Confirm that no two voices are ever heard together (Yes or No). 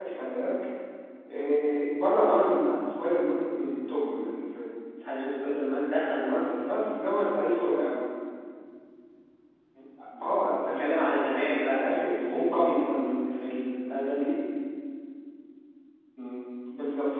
No